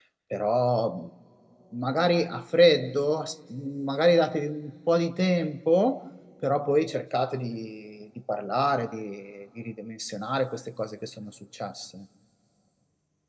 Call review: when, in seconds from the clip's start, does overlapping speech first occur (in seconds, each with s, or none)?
none